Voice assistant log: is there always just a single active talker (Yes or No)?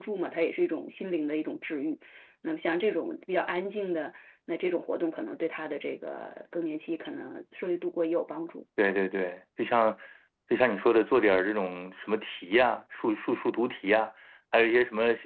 Yes